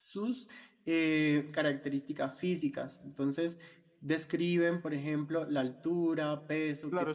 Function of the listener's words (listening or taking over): taking over